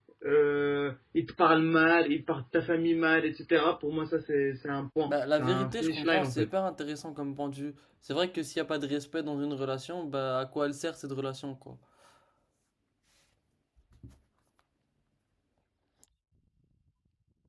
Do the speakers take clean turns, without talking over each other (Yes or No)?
No